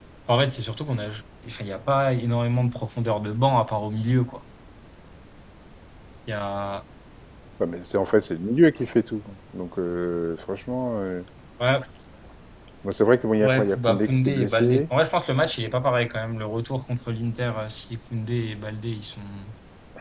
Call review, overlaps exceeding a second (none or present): present